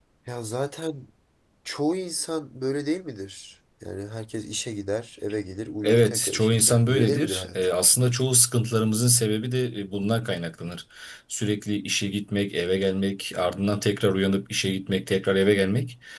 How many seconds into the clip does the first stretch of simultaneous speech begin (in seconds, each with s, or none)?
5.8 s